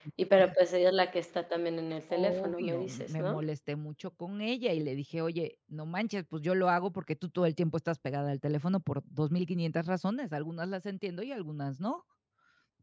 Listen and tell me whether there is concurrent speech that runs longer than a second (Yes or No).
Yes